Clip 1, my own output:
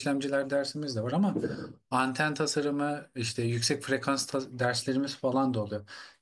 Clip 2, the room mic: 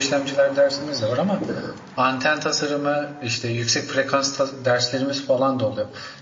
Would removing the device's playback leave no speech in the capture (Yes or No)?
Yes